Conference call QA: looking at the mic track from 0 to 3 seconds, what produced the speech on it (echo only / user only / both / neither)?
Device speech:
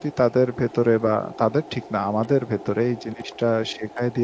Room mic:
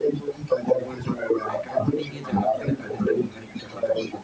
both